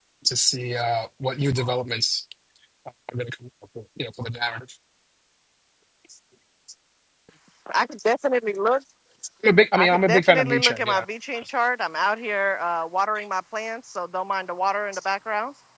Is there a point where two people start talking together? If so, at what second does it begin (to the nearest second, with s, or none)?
10 s